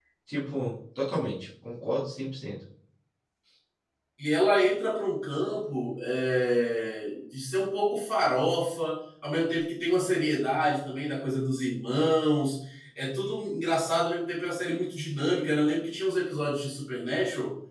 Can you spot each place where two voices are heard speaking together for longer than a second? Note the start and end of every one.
none

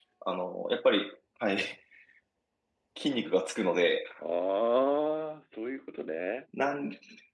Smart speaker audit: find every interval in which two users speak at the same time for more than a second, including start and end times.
none

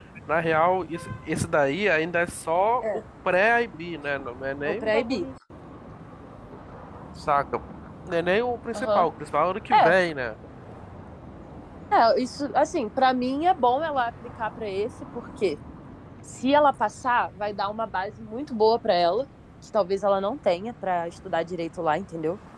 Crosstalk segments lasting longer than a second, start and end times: none

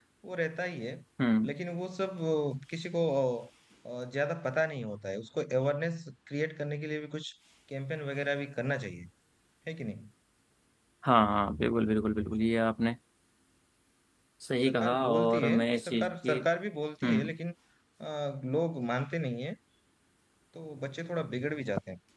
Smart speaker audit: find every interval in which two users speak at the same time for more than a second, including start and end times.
14.6-16.4

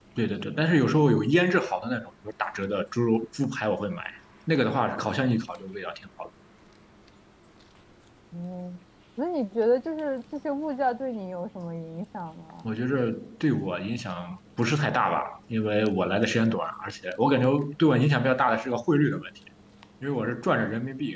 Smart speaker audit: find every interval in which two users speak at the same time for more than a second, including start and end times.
none

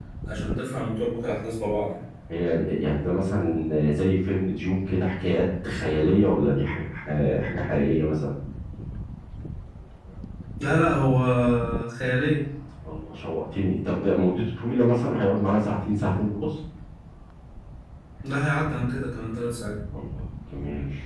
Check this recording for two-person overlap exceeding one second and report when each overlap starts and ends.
none

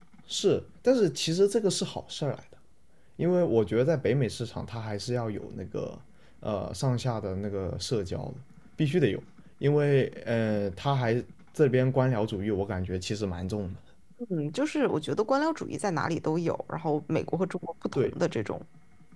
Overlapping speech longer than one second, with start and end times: none

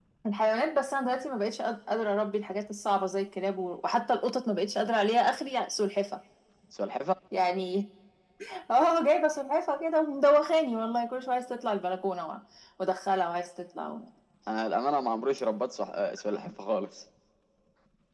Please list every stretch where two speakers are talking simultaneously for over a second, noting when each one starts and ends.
none

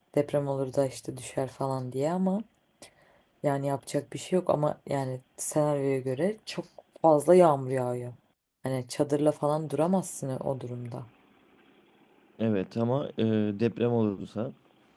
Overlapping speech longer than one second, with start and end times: none

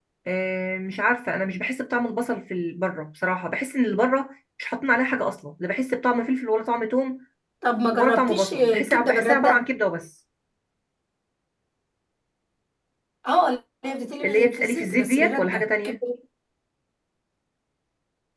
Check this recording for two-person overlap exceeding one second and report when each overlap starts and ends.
7.9-9.6, 14.2-16.0

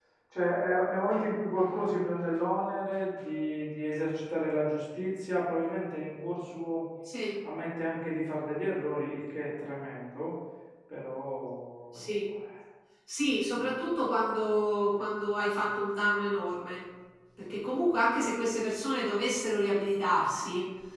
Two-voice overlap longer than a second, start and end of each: none

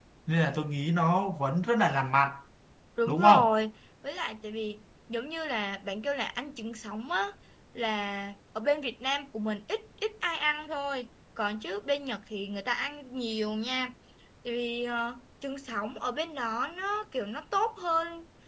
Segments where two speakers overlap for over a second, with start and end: none

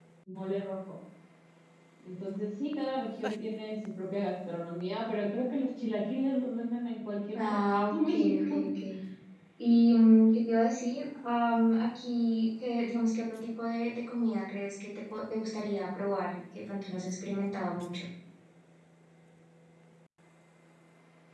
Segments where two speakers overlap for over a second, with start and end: 7.3-8.6

